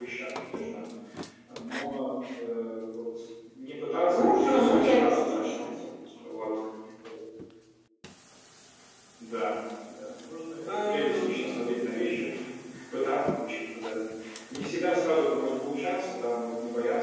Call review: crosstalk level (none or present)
present